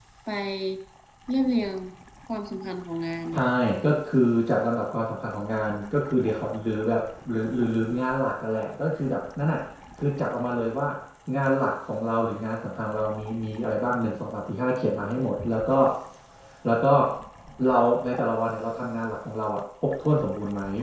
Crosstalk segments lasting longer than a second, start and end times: none

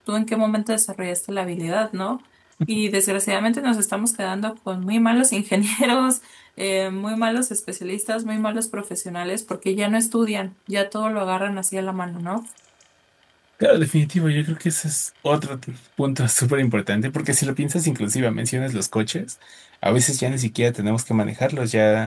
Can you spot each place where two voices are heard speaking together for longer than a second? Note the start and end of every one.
none

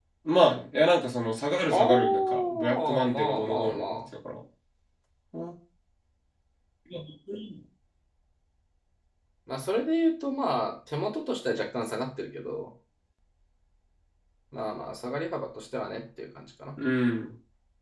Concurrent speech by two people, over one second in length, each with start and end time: 1.7-4.0

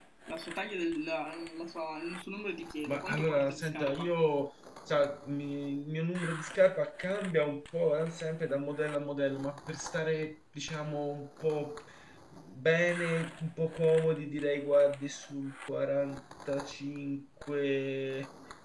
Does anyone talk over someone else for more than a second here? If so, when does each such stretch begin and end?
2.9-4.1

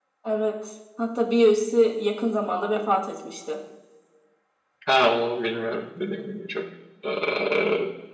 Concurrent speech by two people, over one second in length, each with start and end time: none

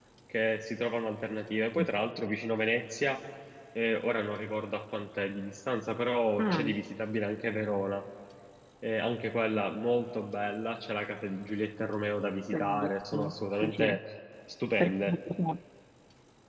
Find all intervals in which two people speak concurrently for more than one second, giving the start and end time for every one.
12.5-14.0

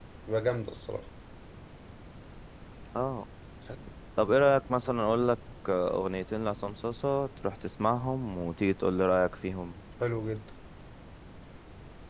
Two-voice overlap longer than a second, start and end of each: none

